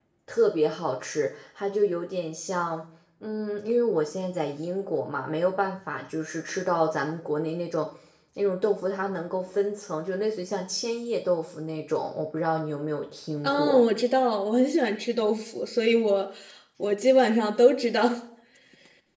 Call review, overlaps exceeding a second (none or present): none